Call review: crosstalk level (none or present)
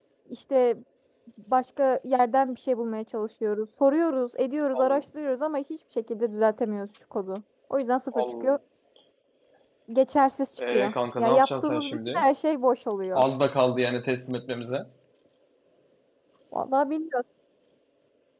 present